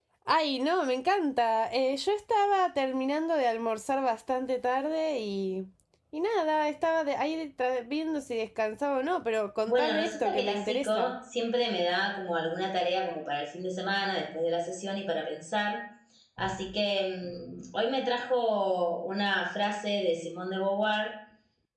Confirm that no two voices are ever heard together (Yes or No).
No